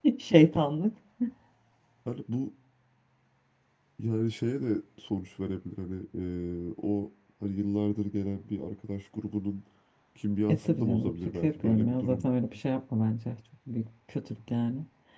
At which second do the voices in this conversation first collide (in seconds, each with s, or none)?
10.5 s